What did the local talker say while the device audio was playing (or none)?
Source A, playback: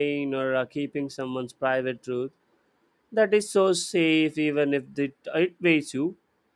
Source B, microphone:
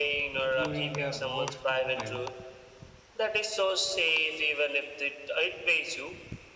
during their worst moment